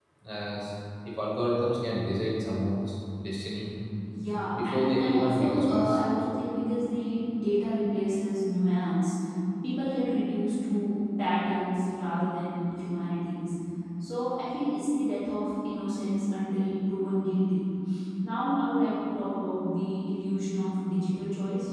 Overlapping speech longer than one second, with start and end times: 4.6-6.0

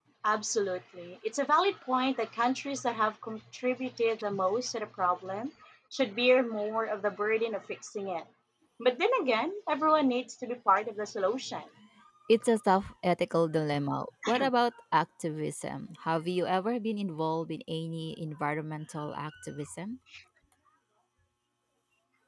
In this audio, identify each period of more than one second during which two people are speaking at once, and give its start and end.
none

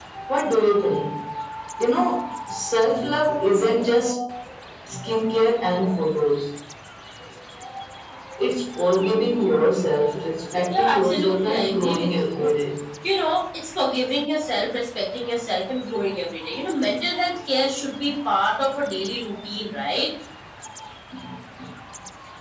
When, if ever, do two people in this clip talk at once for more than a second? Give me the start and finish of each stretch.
10.7-12.5

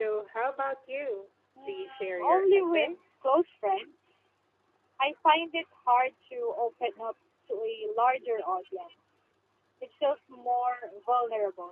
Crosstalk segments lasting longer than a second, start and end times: 1.6-3.0

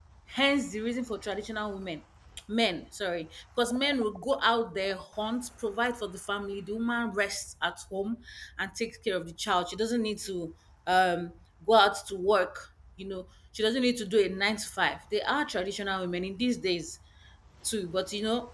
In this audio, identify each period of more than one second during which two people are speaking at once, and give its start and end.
none

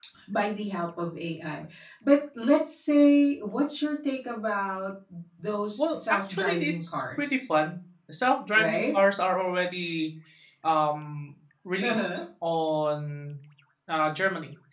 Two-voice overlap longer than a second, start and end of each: 5.8-7.3

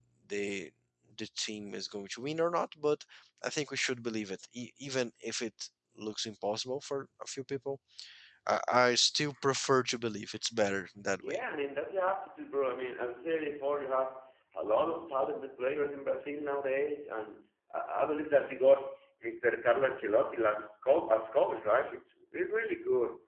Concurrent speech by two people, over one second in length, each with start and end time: none

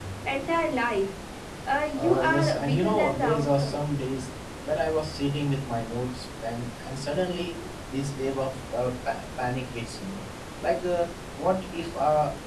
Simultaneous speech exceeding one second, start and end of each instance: 1.9-3.8

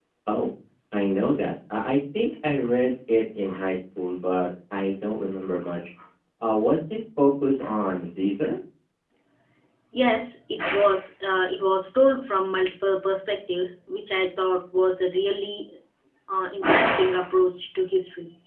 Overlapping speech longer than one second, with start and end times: none

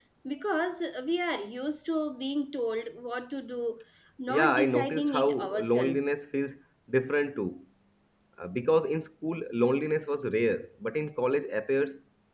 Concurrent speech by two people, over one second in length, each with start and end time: 4.3-6.1

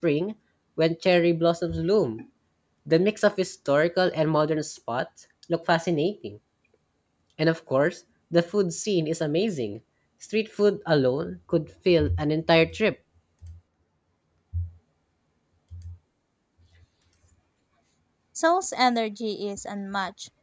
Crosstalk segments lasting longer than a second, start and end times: none

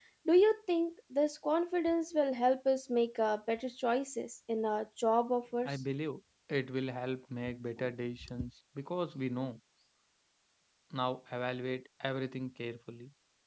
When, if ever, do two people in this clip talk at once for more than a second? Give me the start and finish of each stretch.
none

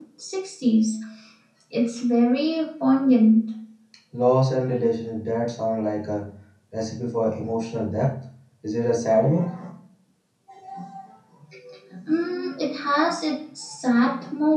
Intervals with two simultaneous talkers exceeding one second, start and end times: none

